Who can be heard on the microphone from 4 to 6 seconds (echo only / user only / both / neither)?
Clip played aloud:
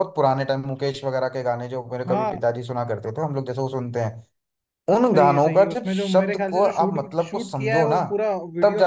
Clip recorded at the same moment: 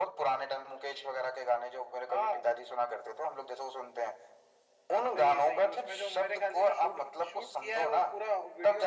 echo only